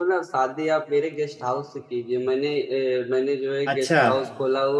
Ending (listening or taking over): listening